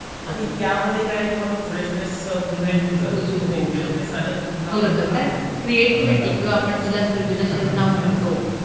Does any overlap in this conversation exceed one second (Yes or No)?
Yes